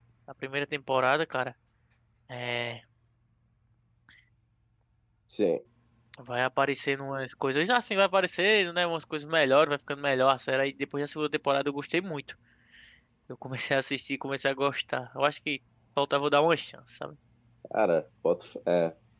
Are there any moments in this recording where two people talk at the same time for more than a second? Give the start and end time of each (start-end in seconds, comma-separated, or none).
none